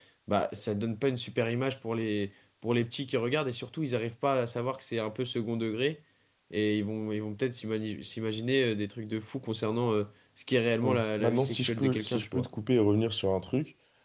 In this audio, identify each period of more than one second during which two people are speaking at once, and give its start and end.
10.8-12.5

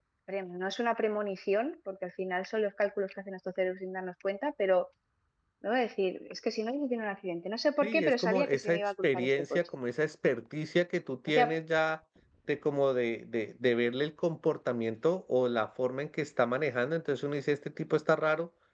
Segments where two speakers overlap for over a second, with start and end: 7.8-9.6

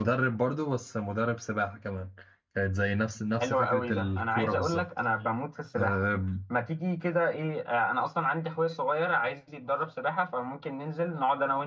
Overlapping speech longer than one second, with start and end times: 3.4-4.9

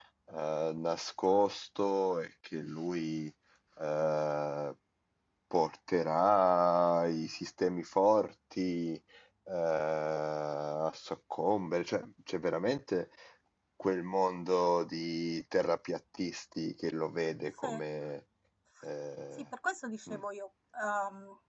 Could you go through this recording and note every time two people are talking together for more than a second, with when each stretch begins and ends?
none

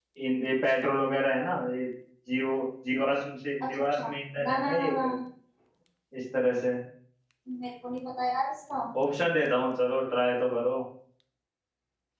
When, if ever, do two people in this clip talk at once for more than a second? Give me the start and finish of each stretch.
3.7-5.0

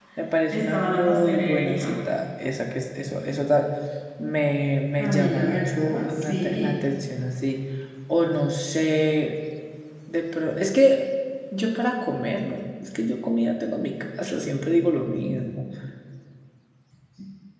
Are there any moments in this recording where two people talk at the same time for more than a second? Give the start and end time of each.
0.5-1.9, 5.0-6.8

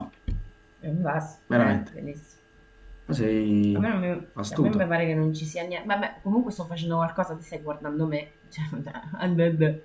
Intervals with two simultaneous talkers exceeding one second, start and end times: none

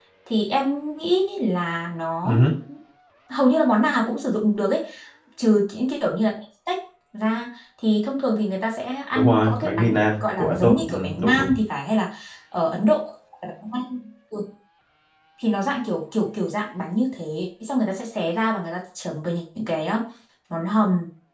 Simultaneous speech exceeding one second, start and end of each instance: 9.2-11.6

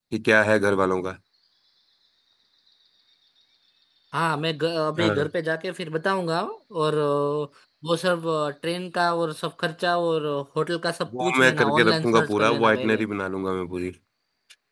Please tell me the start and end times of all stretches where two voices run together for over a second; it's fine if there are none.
11.2-13.0

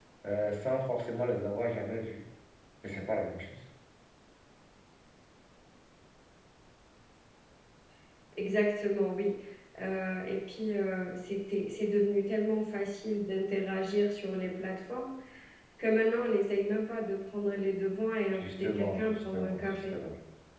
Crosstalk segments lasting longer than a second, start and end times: 18.3-20.0

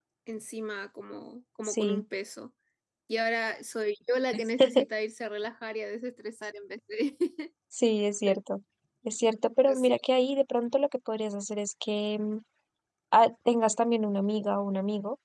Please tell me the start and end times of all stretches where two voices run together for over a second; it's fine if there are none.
none

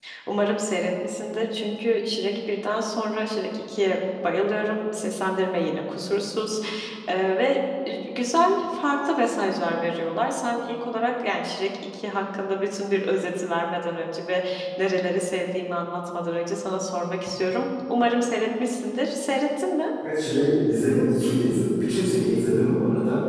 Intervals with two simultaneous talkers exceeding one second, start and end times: none

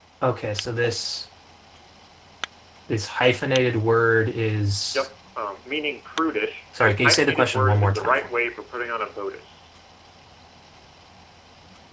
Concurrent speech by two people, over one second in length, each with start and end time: 6.8-8.3

